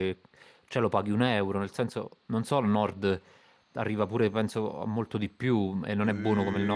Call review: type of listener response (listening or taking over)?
taking over